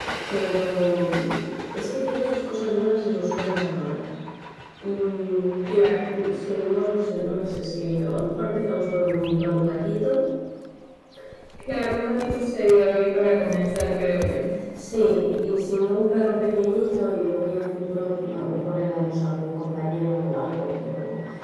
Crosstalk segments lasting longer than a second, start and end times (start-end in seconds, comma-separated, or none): none